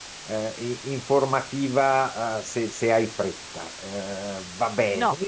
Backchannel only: Yes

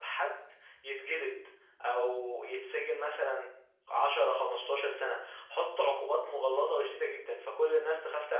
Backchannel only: Yes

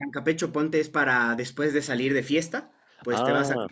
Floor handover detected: No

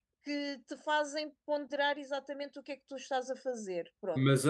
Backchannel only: No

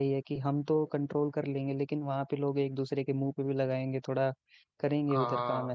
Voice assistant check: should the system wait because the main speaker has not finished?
No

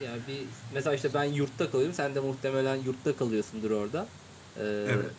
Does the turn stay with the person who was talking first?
Yes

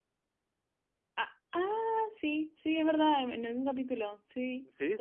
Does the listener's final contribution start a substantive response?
Yes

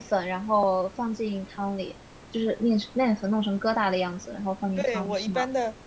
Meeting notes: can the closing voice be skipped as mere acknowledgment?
No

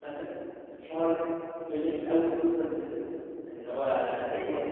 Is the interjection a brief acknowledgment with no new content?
Yes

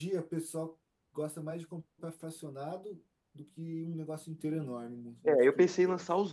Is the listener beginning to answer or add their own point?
Yes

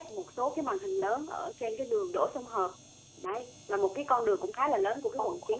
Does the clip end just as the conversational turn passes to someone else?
Yes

